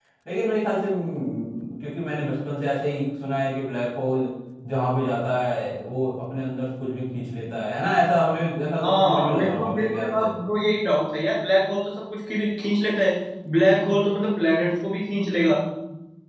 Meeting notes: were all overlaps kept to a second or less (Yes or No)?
No